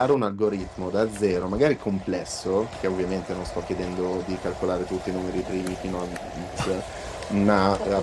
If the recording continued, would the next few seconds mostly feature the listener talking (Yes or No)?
No